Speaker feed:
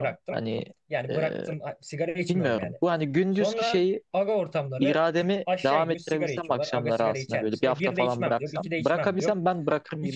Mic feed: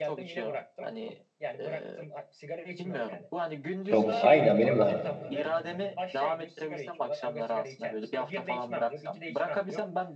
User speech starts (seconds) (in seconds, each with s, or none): 3.9 s